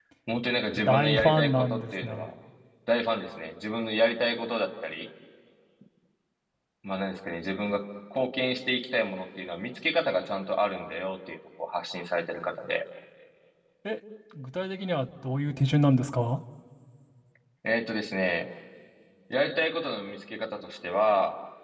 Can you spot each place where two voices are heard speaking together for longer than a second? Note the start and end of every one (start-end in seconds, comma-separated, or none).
0.8-2.3